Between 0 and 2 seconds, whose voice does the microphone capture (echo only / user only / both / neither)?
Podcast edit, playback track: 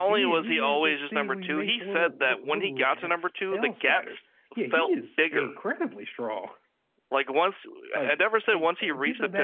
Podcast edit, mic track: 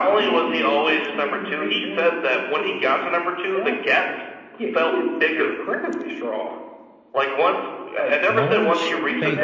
echo only